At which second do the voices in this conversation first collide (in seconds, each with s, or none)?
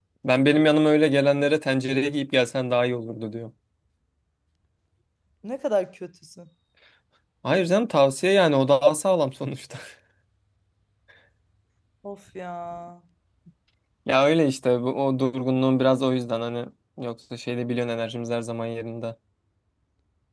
none